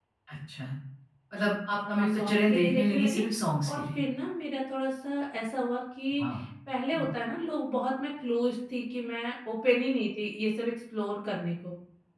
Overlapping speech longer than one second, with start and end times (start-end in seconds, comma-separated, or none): 1.9-3.2